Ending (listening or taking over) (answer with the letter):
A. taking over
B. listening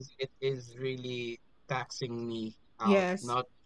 B